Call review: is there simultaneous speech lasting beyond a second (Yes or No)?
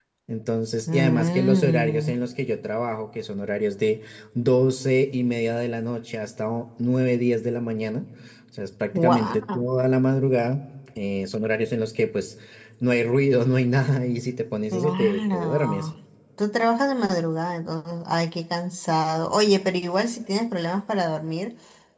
Yes